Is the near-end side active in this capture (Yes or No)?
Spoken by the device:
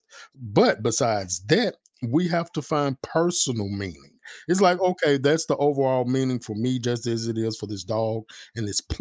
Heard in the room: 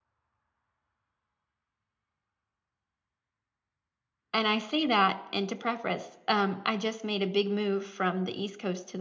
Yes